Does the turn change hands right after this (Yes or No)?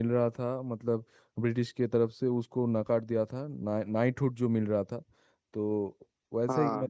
No